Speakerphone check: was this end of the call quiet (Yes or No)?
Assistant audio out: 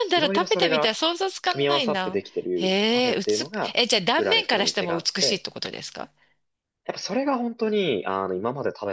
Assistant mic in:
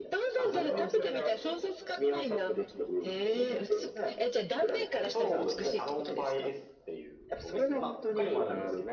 No